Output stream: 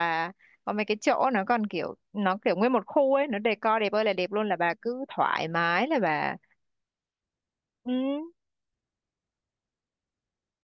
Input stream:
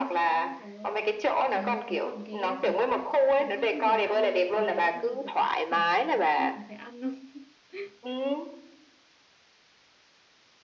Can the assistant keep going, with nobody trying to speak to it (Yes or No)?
No